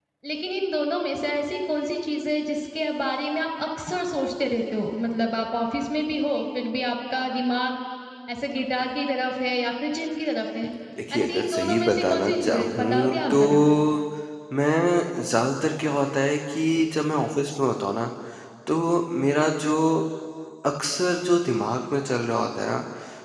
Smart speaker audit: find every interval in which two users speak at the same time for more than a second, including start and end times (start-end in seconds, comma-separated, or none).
11.2-13.4